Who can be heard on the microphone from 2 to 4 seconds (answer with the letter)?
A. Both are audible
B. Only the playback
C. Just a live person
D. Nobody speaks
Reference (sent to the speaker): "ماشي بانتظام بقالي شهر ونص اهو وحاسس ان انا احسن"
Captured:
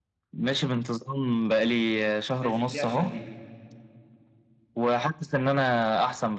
A